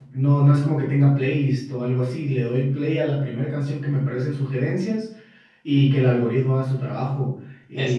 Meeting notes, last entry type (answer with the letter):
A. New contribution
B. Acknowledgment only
B